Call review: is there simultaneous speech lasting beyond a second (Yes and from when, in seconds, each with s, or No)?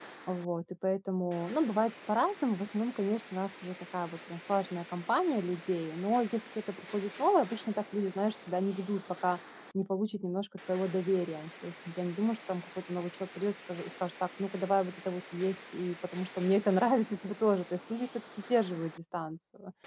No